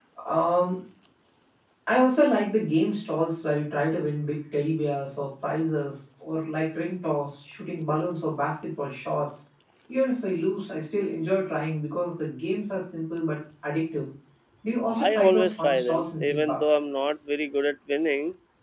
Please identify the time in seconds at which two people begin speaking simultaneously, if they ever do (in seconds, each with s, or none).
14.9 s